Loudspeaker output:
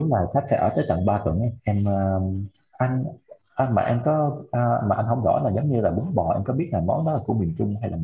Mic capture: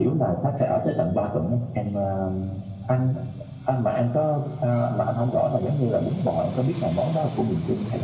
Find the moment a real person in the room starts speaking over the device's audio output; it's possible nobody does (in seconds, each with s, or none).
none